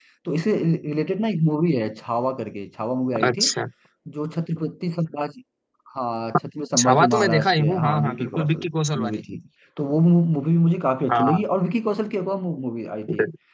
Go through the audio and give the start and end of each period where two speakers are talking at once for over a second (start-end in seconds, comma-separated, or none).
6.8-9.2